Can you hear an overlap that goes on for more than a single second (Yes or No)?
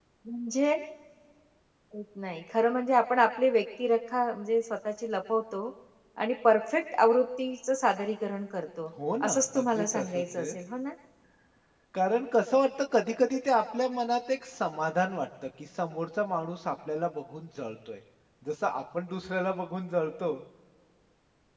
Yes